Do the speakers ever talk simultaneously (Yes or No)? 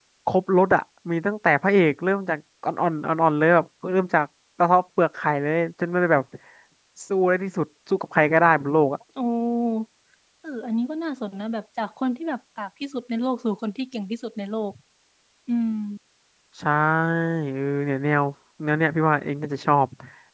No